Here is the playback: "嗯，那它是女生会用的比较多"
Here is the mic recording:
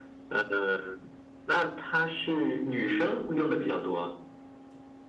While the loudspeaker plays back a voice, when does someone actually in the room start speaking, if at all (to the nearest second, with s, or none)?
none